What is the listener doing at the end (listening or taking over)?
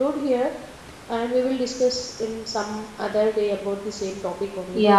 taking over